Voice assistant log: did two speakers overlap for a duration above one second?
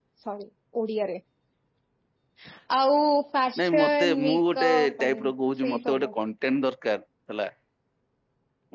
Yes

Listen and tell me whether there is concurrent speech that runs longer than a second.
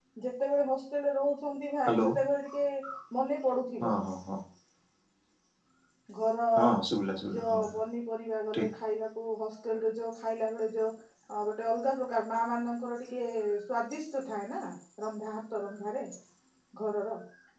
No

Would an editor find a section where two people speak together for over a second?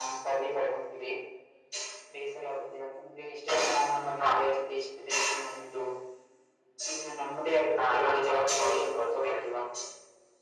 Yes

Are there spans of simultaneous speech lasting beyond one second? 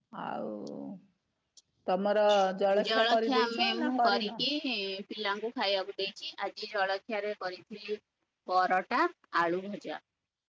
Yes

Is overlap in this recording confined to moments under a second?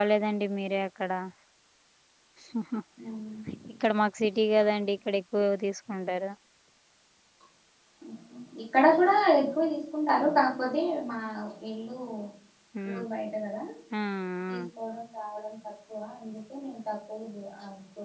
Yes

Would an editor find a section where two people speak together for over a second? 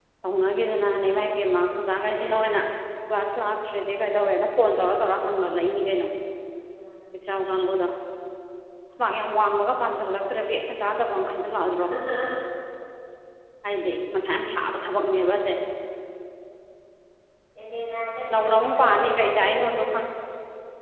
Yes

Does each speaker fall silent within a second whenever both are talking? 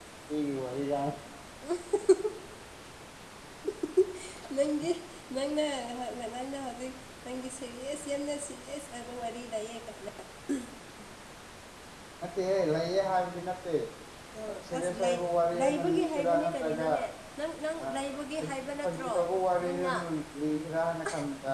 No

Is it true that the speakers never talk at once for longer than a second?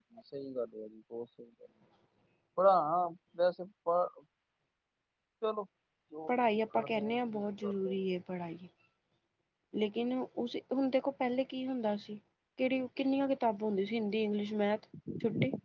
No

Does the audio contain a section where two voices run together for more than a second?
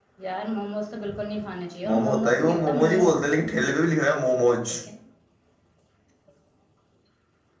Yes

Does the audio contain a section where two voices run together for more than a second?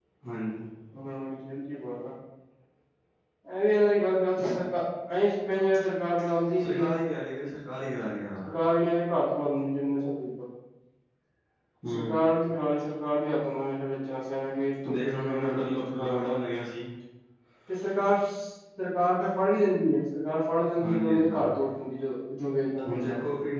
Yes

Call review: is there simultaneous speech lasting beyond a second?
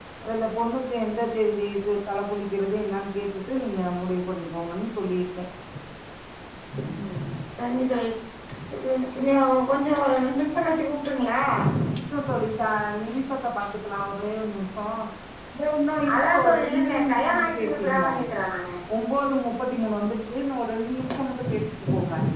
Yes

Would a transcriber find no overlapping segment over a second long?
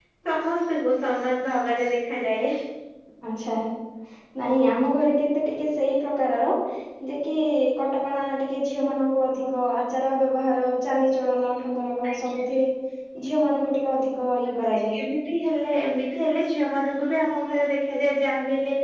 Yes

